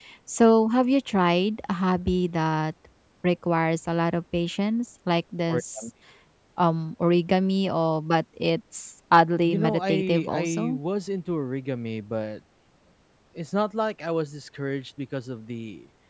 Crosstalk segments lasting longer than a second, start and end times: 9.4-10.8

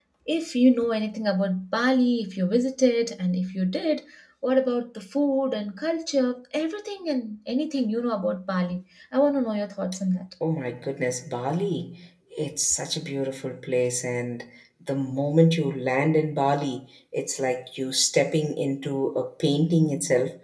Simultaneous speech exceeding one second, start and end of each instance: none

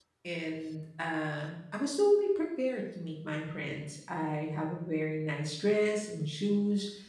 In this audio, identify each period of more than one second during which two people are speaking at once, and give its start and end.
none

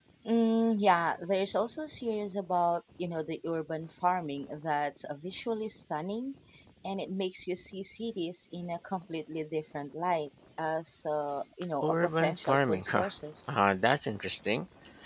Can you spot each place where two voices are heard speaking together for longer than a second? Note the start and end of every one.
11.8-13.0

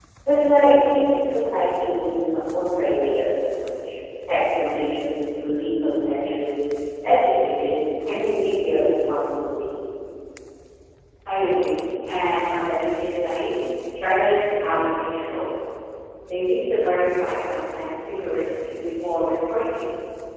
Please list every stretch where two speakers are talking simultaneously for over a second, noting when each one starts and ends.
none

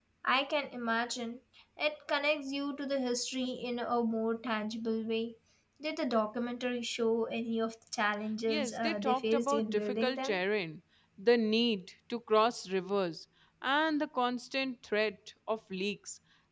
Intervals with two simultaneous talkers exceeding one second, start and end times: 8.5-10.4

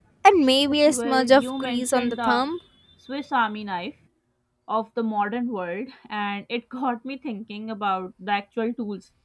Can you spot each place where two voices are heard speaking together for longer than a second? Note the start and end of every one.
0.9-2.4

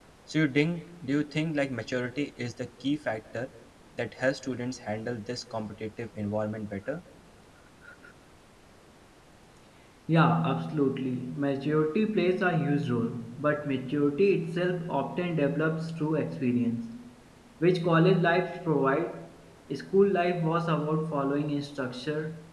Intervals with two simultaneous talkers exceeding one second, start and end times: none

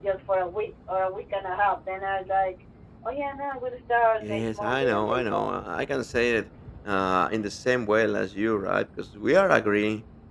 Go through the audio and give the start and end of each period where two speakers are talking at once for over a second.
4.2-5.5

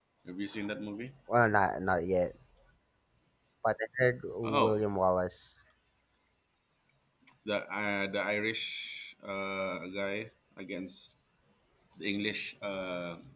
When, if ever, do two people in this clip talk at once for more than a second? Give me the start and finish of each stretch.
none

